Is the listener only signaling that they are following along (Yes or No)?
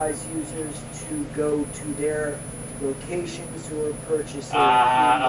No